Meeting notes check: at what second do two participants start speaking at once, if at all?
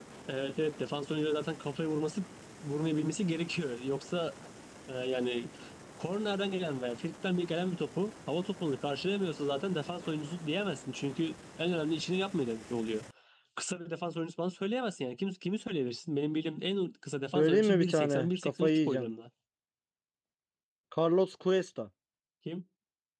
17 s

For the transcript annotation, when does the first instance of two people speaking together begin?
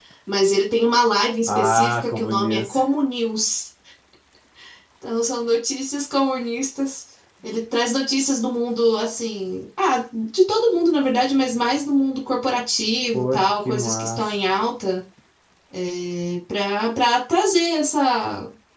1 s

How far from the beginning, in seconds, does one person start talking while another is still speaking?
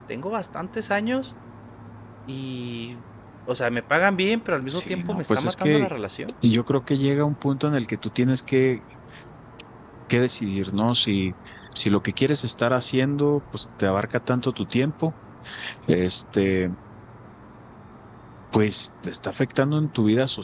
5 s

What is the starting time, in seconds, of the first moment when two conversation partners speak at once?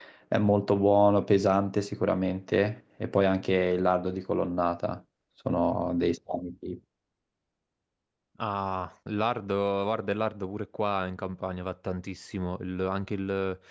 none

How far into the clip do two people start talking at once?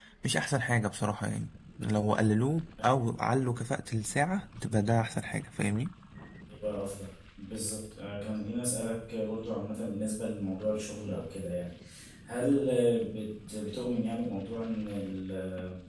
none

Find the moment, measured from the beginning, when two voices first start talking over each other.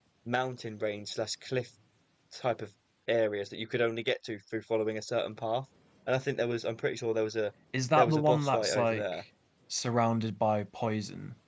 8 s

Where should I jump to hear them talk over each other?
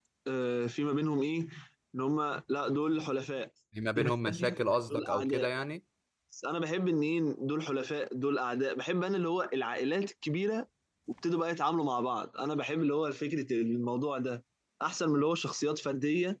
4 s

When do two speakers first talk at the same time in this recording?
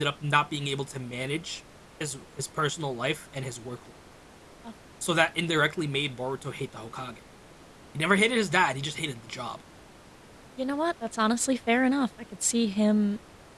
none

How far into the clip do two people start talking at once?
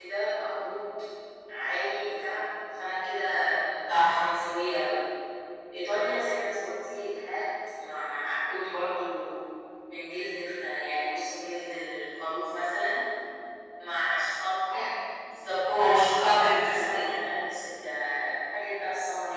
16 s

